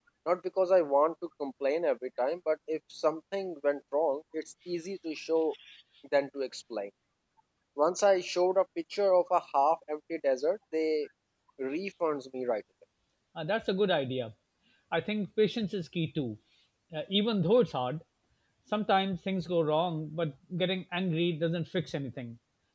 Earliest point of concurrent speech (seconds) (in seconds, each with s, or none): none